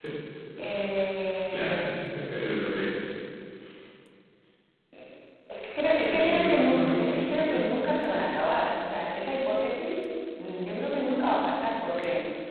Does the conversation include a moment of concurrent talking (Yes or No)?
Yes